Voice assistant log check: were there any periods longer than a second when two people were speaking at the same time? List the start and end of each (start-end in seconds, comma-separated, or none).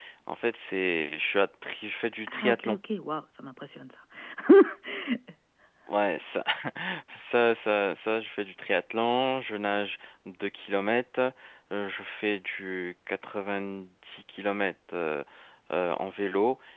none